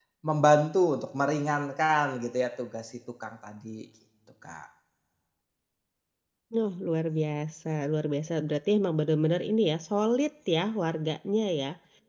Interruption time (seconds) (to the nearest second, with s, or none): none